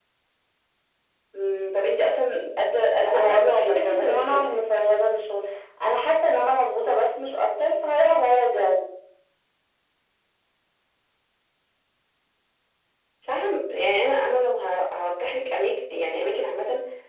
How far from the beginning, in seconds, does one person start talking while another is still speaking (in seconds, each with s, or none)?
3.0 s